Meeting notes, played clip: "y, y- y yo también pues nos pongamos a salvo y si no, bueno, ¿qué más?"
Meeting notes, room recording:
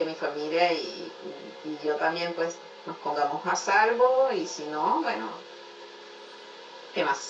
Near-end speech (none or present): none